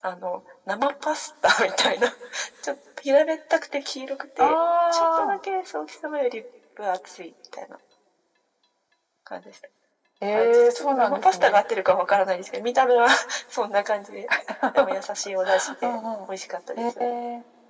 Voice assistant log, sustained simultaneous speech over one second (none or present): present